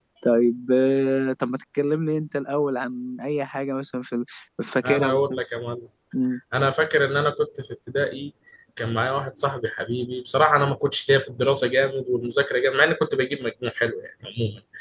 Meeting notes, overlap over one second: none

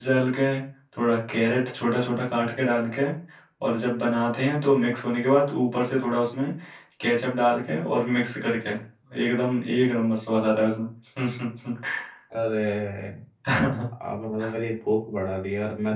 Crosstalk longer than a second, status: none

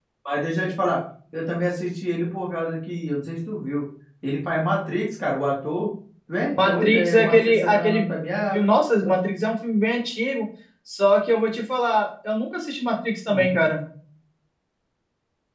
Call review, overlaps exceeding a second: present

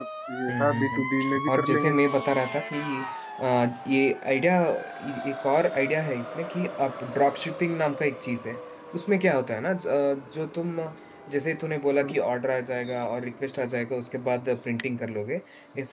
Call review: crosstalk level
present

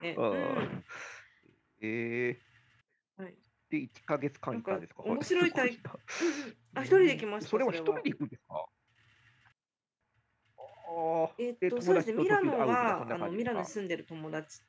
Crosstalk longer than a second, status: present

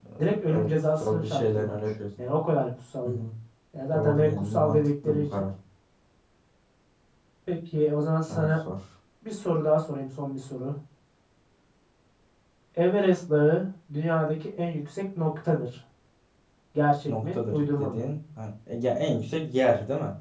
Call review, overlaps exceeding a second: present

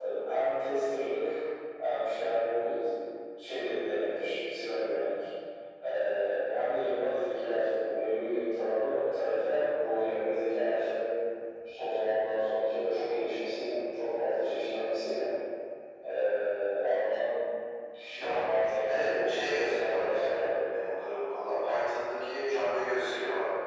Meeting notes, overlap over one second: present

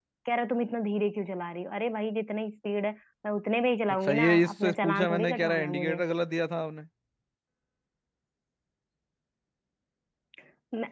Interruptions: present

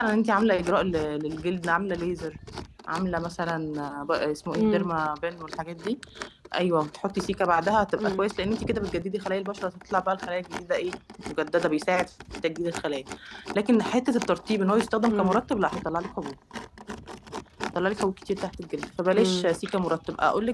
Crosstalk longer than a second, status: none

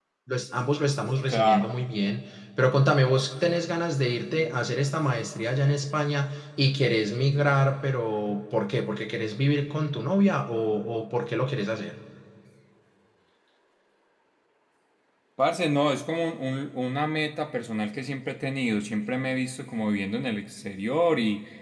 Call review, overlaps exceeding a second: none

